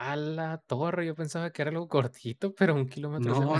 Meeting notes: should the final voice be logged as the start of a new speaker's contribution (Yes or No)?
Yes